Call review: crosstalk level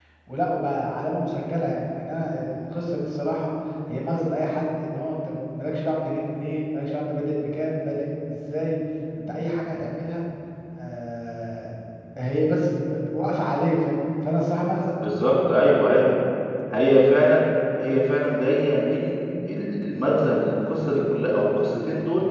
none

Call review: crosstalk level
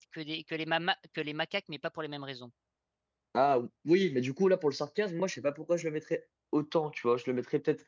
none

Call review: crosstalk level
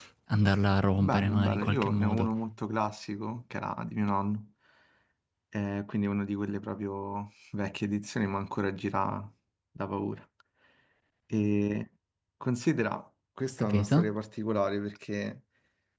present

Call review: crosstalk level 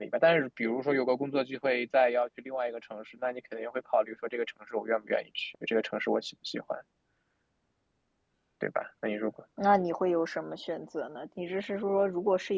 none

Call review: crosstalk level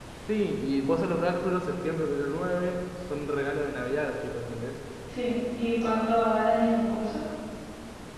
none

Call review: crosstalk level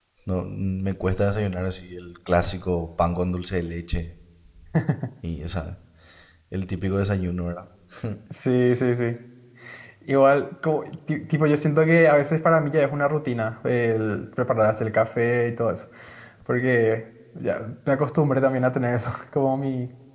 none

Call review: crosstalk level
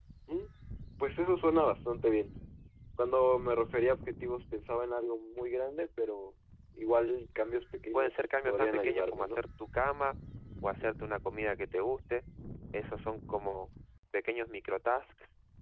present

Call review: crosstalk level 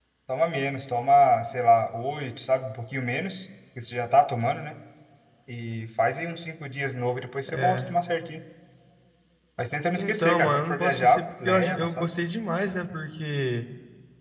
present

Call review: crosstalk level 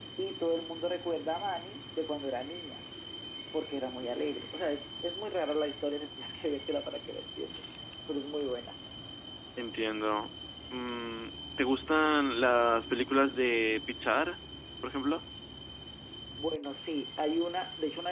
none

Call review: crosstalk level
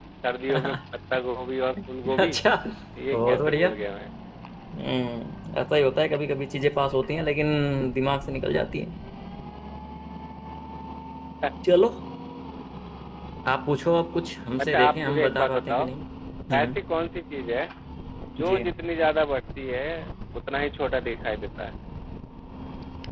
present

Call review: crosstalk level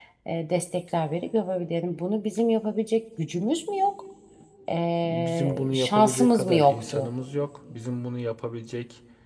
present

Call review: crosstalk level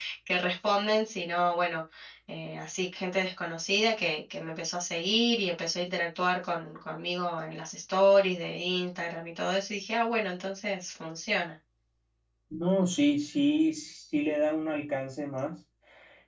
none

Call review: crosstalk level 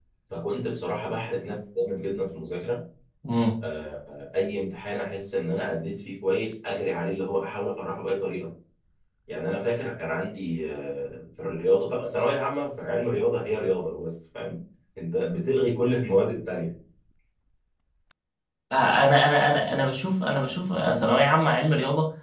none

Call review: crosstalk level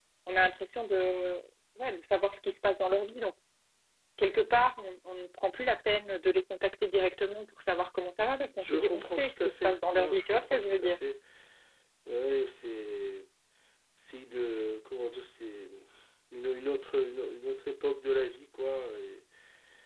present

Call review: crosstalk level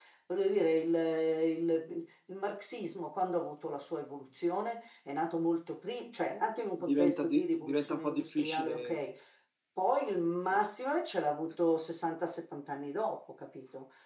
present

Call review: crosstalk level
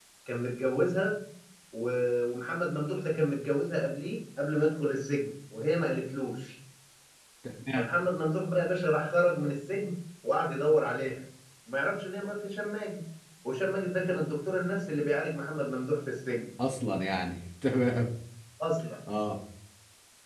none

